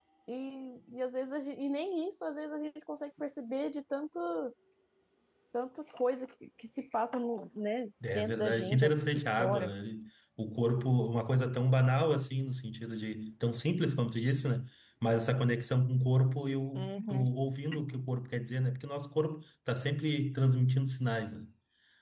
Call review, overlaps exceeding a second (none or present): present